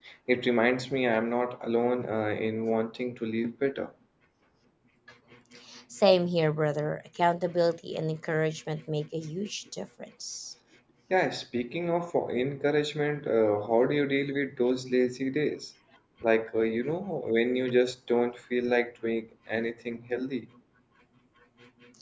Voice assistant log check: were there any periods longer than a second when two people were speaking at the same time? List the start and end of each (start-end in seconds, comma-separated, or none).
none